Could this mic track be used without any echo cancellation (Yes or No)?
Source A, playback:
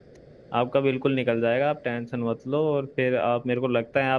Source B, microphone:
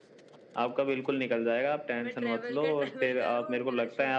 No